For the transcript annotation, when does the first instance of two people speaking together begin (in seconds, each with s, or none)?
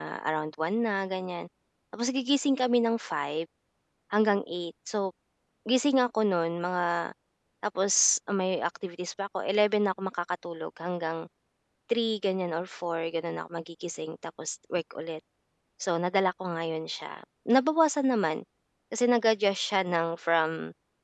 none